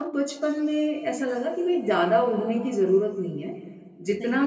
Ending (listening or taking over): listening